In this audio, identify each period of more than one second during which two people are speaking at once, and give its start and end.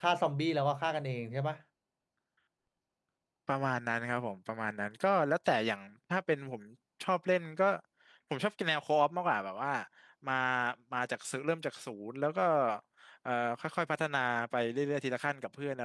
none

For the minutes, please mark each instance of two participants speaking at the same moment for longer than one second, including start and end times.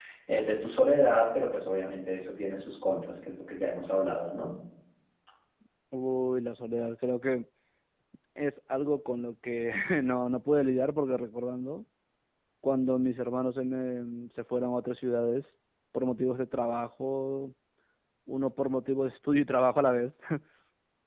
none

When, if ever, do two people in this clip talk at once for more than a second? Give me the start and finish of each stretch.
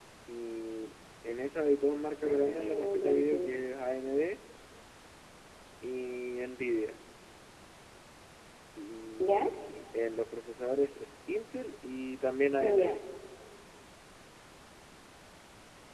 2.2-3.6

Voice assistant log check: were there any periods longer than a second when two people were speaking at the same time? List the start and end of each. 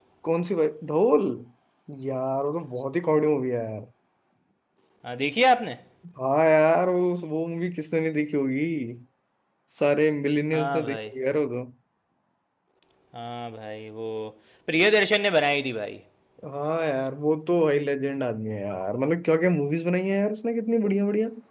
none

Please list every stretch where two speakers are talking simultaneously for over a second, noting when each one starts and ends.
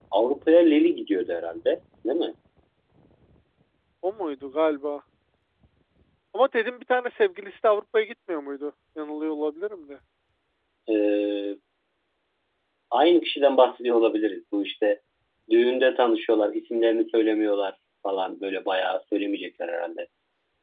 none

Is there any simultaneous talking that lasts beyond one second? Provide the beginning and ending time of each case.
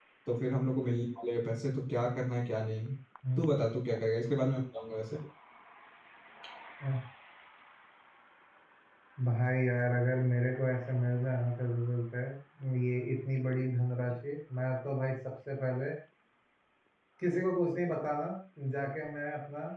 none

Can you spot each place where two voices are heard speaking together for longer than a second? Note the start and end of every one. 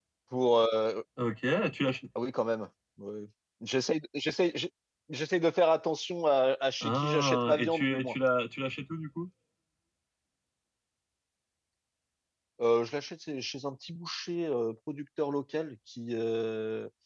6.8-8.2

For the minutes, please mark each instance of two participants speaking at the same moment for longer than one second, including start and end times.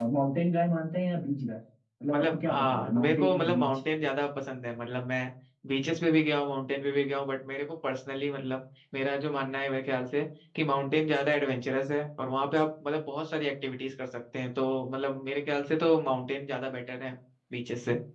2.1-3.7

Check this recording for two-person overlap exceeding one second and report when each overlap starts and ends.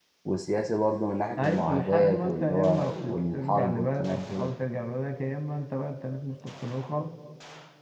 1.4-4.5

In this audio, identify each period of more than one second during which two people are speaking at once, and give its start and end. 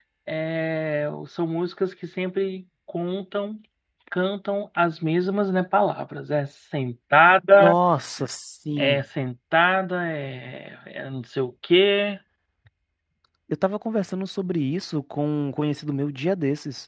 none

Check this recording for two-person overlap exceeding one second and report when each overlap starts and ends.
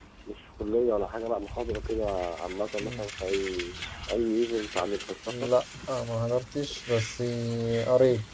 none

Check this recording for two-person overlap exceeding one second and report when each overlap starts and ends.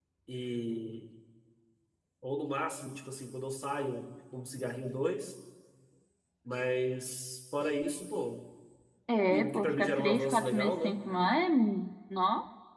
9.3-11.0

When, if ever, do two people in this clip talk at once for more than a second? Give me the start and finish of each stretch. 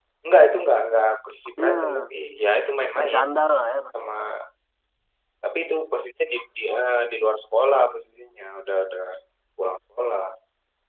none

